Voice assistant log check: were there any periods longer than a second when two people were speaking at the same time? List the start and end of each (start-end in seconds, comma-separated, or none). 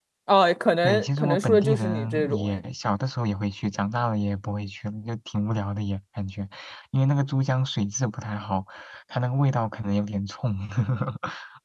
0.8-2.6